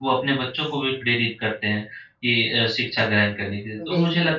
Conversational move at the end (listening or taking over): listening